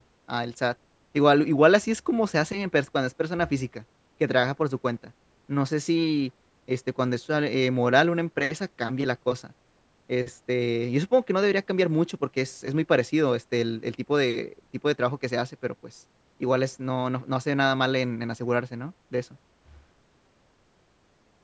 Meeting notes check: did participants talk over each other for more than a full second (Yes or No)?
No